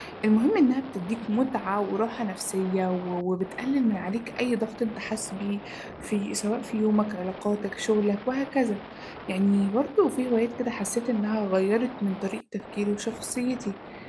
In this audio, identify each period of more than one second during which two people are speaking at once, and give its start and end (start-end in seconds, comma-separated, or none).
none